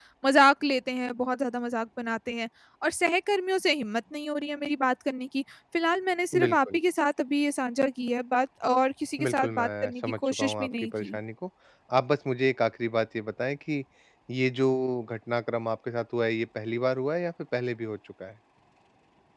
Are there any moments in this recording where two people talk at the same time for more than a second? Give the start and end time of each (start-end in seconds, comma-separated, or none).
9.2-11.2